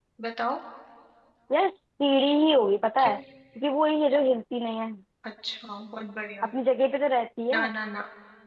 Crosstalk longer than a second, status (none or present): none